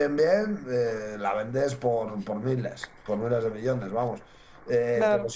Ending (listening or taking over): listening